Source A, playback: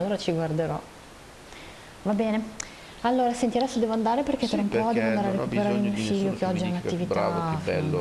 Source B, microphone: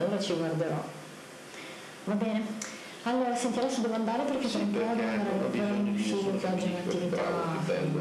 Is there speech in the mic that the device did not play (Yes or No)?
No